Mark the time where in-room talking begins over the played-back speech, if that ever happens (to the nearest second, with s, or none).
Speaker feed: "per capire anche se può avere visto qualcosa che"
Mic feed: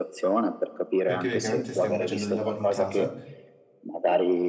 1 s